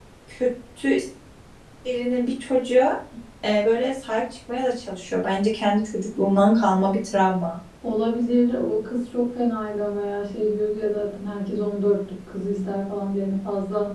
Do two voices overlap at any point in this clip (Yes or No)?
No